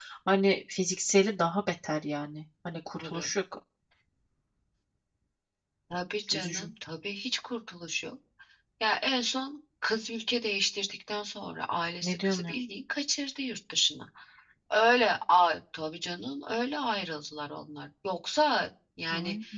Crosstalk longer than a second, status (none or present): none